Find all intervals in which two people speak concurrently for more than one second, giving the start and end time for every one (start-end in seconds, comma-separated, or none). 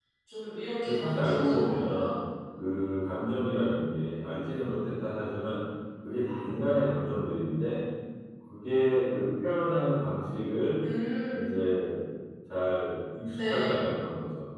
0.8-2.1